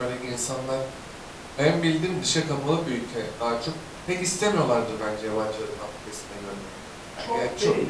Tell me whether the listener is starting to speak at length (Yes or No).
Yes